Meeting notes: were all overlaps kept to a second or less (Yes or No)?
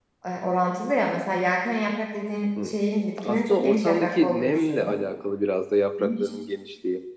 No